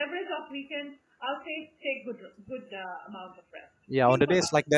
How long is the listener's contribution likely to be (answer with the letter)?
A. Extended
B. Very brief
A